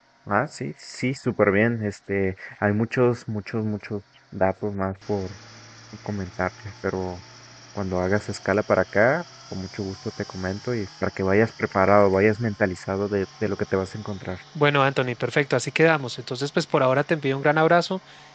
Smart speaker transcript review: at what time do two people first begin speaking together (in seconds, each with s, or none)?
none